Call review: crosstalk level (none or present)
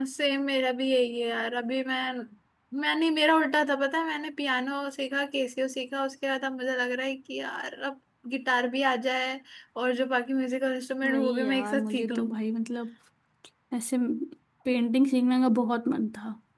present